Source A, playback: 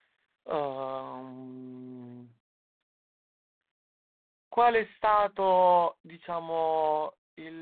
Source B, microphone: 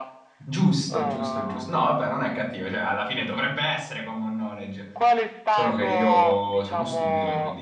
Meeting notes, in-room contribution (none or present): present